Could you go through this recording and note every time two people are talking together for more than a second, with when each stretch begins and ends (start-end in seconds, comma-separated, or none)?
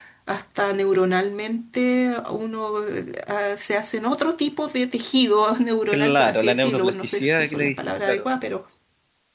5.9-8.2